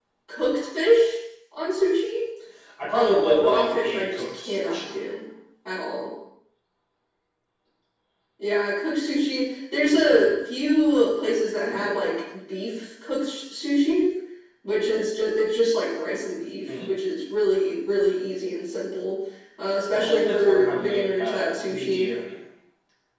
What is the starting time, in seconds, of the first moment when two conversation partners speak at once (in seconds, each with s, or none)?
2.9 s